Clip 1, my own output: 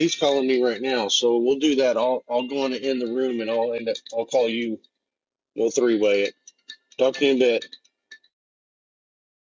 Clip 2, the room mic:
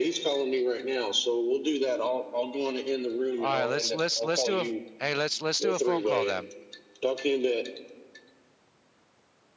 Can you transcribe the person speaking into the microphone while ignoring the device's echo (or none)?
All right, let's let's let's do a hey, let's let's do a phone call then.